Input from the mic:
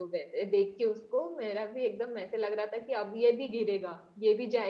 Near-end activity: present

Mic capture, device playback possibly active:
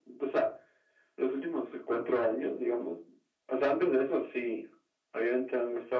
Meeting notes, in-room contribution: none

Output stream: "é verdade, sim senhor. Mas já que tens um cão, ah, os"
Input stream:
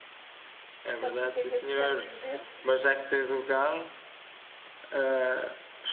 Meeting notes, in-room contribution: present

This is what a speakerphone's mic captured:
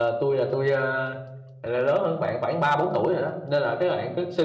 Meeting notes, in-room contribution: present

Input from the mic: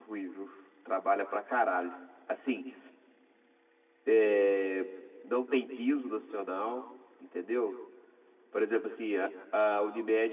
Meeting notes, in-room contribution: present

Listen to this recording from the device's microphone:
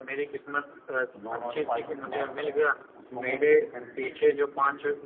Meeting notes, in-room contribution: present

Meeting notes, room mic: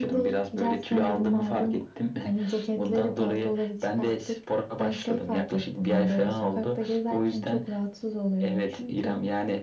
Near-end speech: none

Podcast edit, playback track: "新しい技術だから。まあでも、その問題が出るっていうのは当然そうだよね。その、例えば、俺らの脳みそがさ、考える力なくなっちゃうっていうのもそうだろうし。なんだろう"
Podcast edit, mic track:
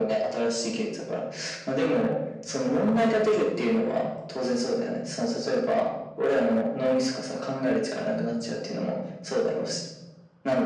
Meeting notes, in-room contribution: none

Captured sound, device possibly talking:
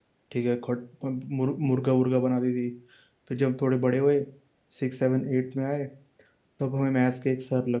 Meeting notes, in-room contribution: present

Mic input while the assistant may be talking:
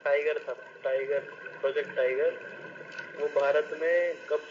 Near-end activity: none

